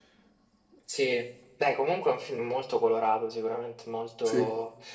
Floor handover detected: No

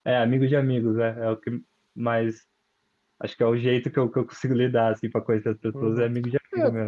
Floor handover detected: Yes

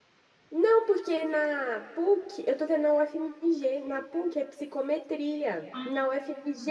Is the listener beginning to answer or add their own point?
No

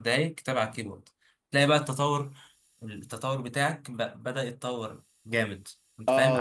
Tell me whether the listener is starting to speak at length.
Yes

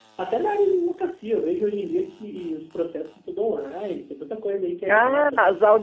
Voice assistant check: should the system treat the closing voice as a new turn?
Yes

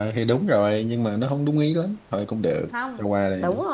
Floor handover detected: Yes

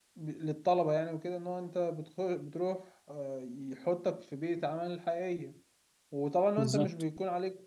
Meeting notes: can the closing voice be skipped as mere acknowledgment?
Yes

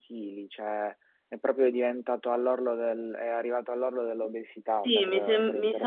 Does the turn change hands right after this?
Yes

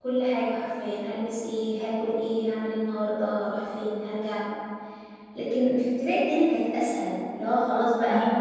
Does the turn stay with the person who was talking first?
Yes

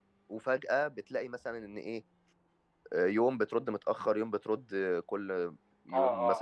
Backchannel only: No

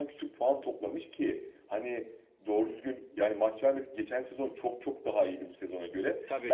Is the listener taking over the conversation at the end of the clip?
No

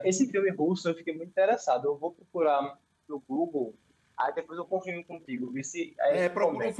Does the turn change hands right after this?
Yes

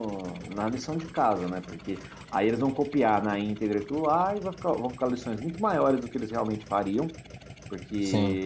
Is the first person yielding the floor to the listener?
No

